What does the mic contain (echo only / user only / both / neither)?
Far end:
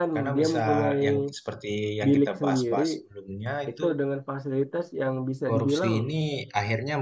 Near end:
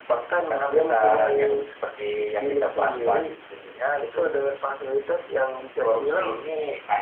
echo only